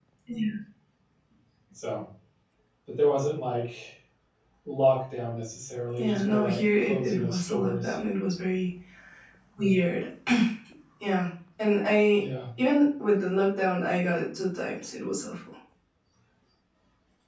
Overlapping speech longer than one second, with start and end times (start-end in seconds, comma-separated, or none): 6.0-8.0